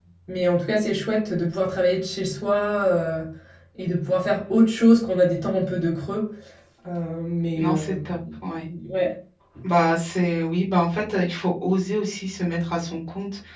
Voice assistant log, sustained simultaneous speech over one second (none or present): none